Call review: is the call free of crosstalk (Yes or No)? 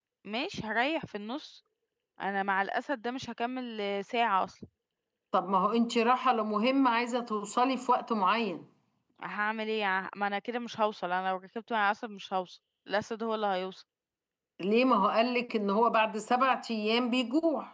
Yes